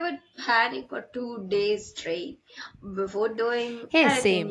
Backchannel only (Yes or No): No